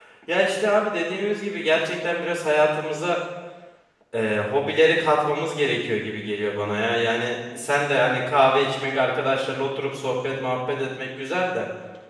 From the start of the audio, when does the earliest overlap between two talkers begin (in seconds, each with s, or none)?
none